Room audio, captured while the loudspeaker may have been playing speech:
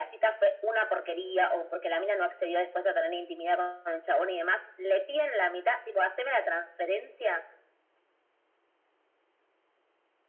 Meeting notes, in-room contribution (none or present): none